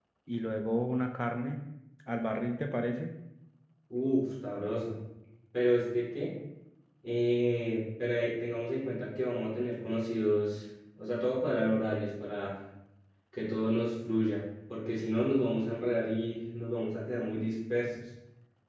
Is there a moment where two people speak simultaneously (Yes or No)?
No